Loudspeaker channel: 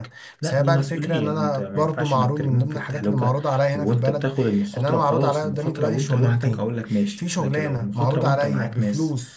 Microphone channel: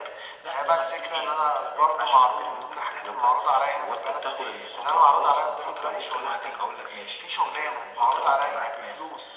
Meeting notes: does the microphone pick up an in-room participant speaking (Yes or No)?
No